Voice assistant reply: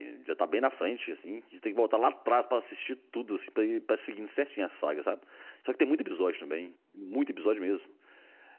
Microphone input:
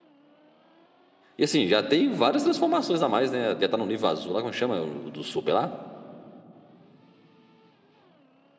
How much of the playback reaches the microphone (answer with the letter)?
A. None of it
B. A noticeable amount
A